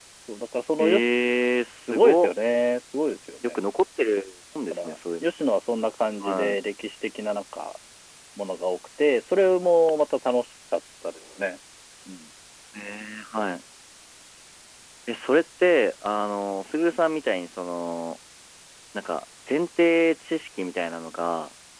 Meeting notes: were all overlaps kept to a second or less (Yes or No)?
Yes